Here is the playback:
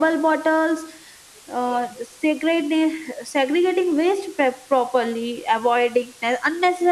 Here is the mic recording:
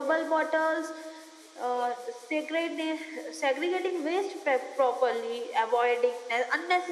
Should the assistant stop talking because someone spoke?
No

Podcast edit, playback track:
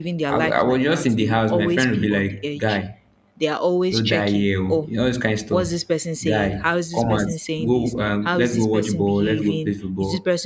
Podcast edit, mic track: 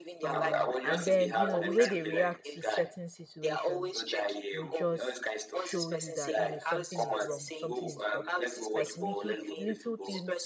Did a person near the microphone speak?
Yes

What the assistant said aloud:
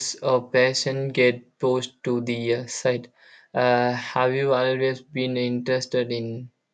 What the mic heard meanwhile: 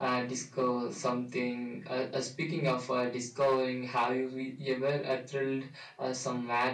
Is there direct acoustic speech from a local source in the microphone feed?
Yes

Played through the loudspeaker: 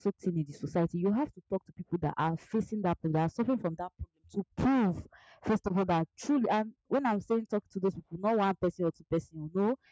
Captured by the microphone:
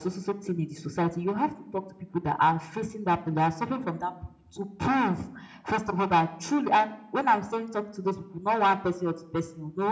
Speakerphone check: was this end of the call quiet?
Yes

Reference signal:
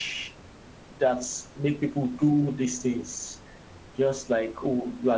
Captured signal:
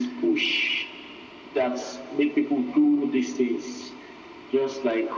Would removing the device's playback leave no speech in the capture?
Yes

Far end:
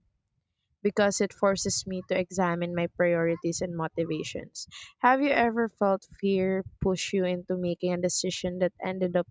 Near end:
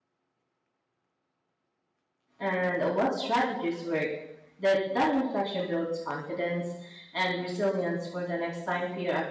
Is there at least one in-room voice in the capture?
Yes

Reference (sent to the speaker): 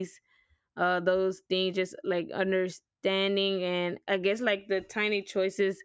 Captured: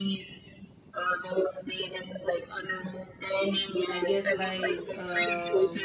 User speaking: Yes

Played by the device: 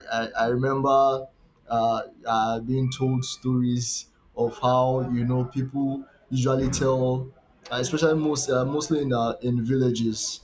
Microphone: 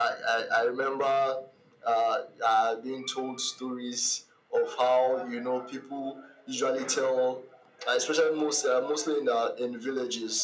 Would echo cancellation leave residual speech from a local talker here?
No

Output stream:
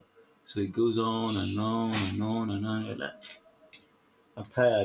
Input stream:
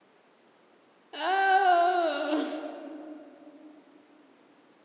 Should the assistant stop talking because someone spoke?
Yes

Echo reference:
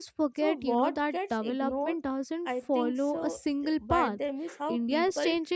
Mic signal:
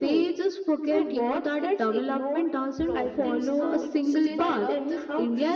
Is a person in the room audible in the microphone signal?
Yes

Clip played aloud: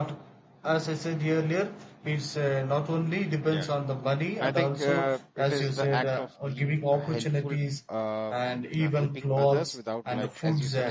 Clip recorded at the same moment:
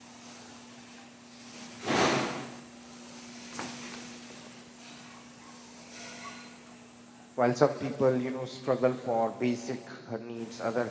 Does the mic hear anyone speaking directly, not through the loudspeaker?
Yes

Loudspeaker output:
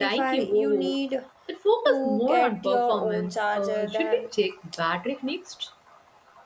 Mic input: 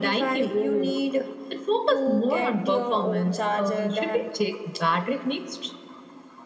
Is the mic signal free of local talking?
Yes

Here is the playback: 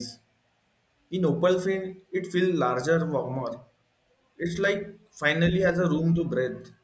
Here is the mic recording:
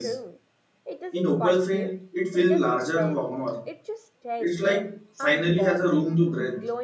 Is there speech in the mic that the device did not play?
Yes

